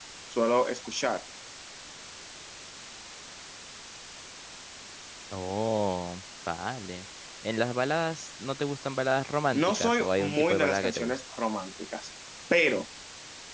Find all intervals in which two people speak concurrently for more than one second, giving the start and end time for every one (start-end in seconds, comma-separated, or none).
9.5-11.2